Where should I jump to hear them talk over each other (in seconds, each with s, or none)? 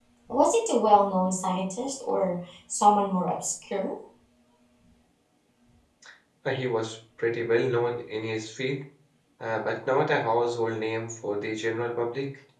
none